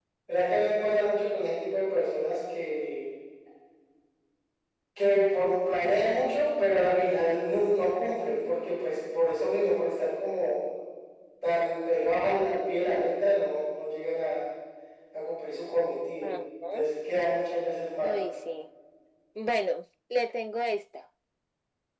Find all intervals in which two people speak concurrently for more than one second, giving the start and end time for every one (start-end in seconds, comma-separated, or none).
none